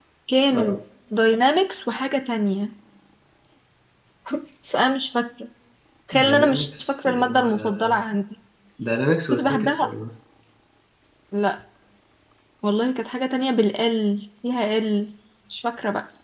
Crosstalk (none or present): present